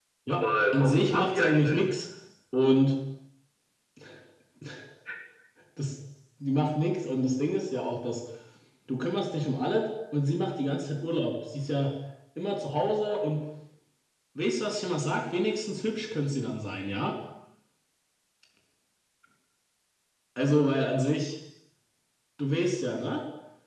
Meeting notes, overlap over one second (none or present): present